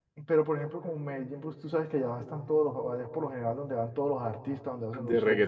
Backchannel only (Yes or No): No